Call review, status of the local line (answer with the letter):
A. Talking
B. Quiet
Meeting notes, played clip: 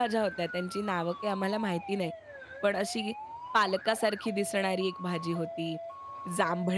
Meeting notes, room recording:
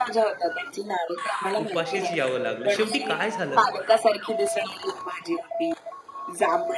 A